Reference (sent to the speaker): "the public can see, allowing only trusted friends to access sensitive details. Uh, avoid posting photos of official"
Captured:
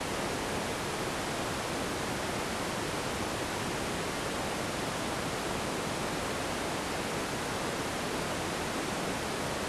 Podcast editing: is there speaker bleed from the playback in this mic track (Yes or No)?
No